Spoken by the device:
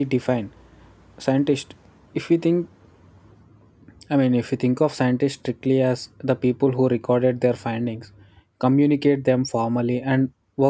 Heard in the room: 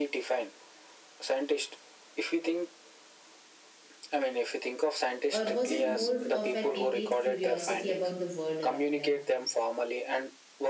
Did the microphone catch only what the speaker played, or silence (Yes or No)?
No